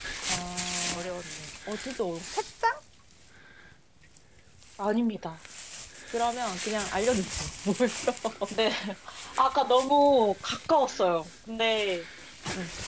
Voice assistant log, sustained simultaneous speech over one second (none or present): none